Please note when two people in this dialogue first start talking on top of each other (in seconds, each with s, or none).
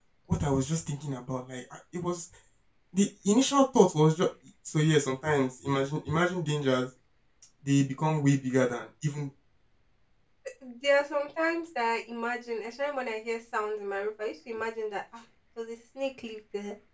none